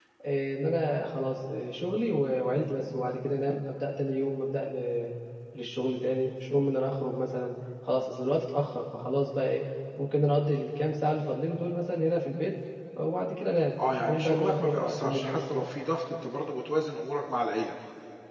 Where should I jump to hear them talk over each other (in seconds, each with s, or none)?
14.1 s